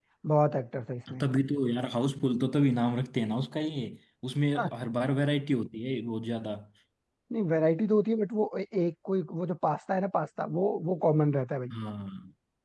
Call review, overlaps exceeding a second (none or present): none